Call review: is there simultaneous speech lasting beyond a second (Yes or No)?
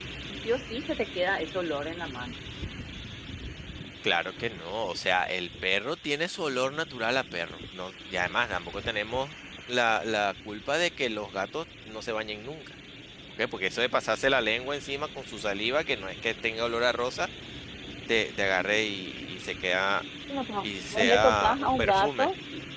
Yes